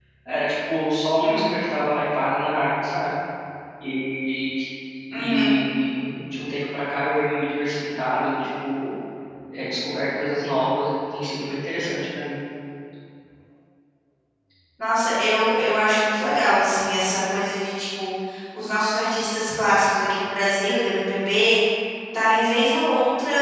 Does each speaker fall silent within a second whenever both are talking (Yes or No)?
Yes